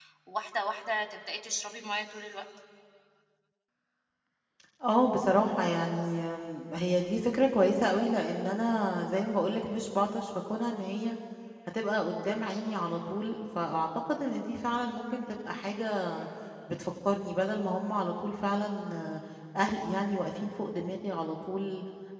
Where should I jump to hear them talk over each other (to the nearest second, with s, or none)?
none